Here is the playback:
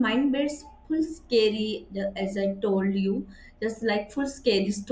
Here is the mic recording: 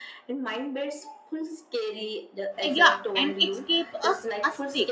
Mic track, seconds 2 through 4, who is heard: both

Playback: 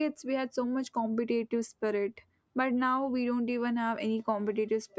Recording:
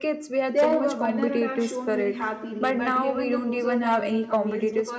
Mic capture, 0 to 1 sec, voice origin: both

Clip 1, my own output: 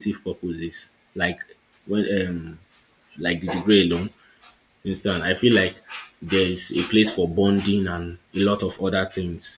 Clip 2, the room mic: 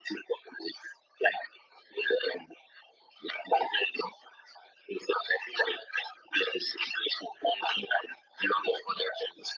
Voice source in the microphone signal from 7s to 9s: echo only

